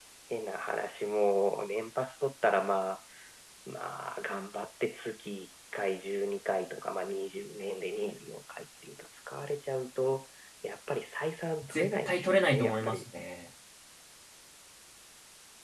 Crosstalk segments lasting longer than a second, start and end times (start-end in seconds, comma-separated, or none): 11.6-13.1